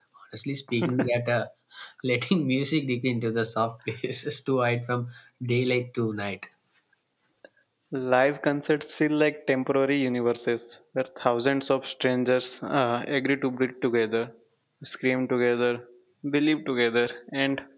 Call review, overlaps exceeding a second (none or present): none